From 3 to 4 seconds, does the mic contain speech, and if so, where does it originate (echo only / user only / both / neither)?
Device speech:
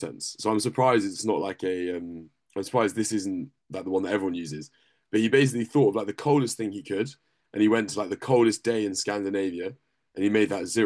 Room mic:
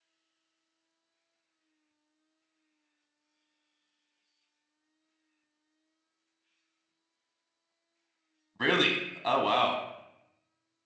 neither